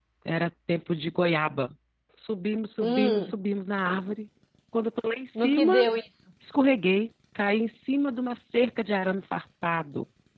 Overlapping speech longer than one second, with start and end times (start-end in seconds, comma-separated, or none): none